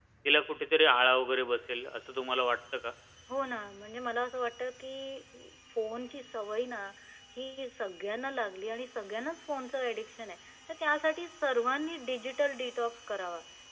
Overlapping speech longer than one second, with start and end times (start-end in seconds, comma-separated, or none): none